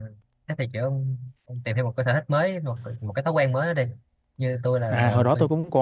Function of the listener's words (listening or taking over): taking over